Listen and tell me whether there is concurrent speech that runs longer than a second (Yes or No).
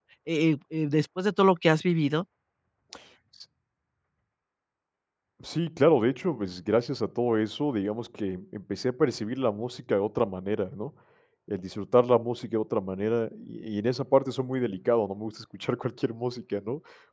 No